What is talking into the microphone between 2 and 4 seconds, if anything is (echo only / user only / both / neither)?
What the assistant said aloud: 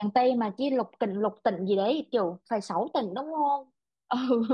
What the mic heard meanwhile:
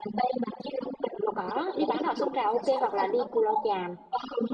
both